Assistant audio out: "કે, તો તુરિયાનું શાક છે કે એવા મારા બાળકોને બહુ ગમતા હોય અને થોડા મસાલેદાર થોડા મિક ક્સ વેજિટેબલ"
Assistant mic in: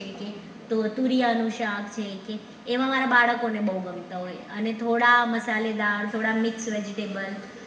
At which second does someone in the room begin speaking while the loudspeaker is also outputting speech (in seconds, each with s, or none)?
none